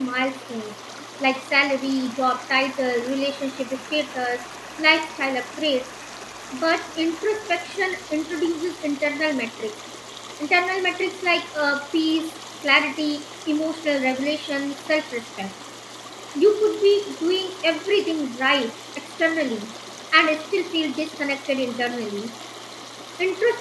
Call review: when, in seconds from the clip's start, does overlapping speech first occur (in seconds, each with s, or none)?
none